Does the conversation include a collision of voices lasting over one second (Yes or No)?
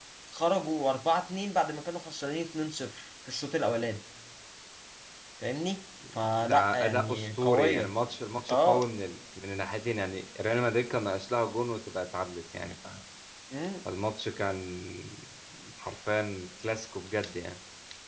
Yes